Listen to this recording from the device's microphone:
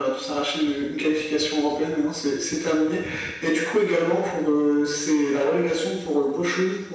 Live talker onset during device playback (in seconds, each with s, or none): none